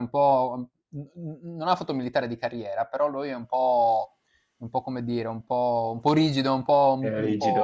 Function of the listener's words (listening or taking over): listening